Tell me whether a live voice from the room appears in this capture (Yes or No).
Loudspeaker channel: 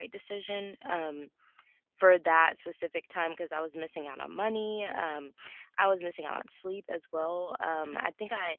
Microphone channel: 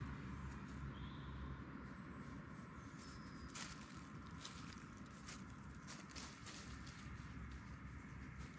No